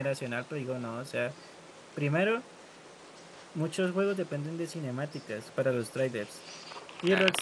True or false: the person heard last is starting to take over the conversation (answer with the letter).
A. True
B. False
B